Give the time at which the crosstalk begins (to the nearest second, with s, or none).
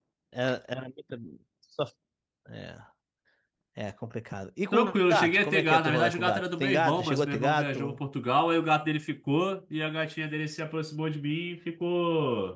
5 s